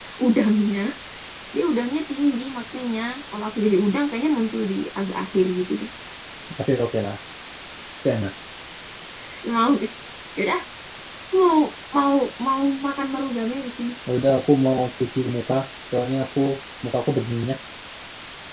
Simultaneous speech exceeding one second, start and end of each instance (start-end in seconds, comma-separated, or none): none